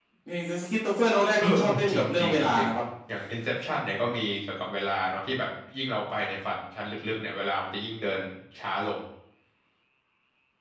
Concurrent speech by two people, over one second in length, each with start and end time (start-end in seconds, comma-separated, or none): 1.4-2.7